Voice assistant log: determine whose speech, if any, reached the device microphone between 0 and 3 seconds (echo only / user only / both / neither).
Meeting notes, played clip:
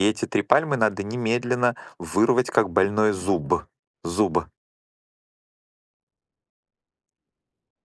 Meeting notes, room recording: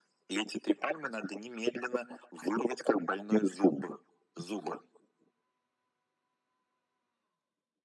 echo only